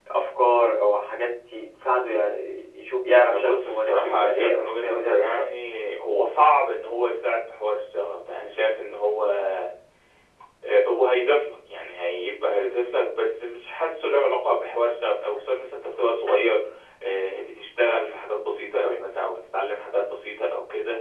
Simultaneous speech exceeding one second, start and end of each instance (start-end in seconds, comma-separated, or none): 3.3-5.5